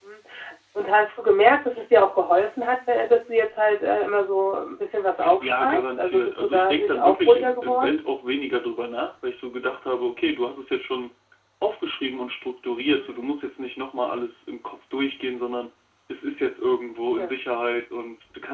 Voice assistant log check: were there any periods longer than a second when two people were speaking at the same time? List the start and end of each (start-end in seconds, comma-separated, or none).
5.4-8.0